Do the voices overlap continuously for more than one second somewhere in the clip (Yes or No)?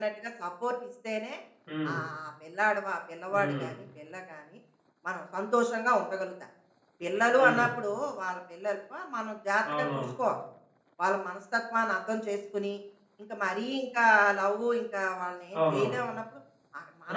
No